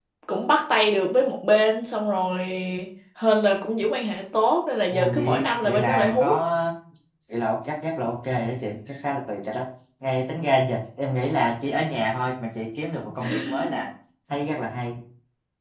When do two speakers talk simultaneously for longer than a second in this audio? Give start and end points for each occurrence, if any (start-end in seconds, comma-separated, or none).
4.9-6.3